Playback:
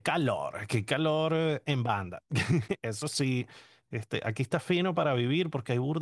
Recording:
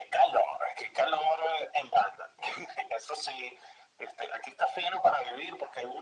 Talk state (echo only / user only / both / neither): echo only